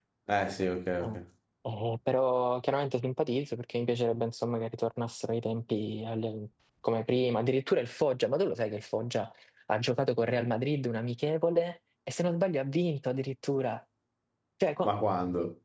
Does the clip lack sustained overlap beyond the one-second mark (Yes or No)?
Yes